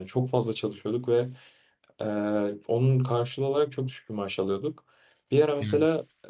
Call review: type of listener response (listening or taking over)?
listening